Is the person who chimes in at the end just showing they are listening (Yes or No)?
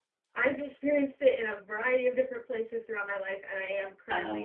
Yes